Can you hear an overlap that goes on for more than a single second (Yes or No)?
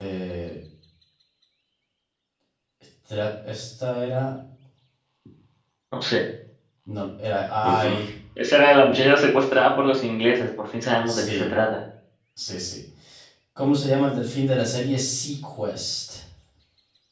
No